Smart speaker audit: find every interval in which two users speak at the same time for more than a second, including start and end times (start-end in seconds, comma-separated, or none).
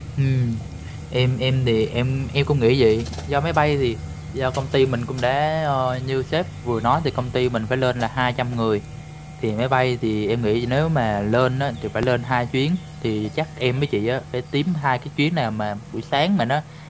none